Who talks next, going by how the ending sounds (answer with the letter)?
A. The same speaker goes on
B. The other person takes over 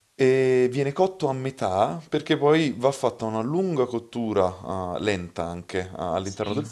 B